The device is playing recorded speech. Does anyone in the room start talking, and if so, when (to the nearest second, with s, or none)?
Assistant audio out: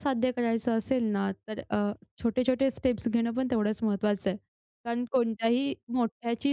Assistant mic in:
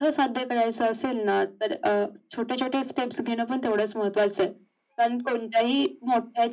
none